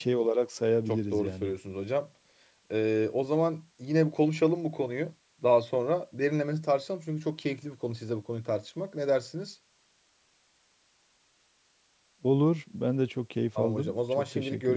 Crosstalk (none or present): present